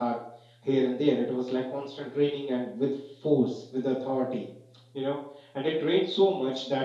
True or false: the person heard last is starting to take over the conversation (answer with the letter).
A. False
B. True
A